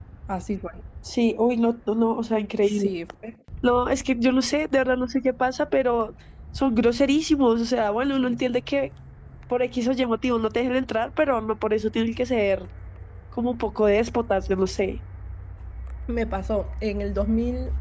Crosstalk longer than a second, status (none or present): none